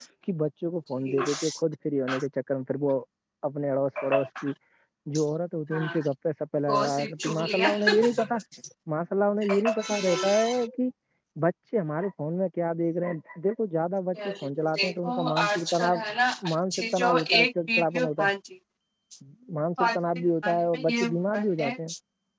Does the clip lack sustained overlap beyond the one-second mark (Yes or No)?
No